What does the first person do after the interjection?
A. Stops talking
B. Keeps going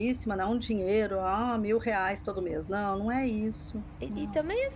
A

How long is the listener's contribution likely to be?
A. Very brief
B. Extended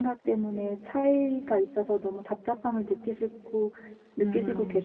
B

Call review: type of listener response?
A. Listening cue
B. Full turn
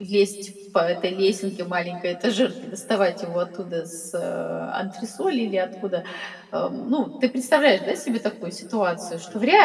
A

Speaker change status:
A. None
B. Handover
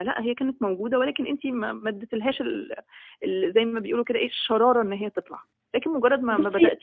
A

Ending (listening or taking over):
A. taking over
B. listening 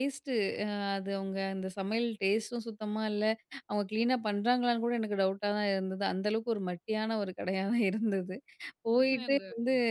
B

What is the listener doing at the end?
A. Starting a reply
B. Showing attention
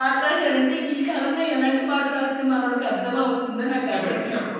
A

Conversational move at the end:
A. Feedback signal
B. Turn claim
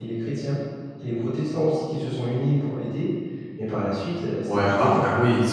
B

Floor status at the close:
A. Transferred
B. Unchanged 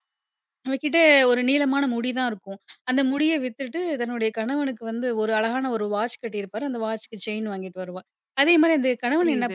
B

